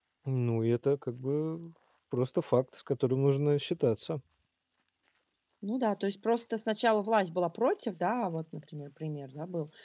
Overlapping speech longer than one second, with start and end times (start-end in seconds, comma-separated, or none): none